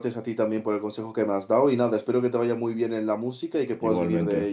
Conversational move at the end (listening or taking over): taking over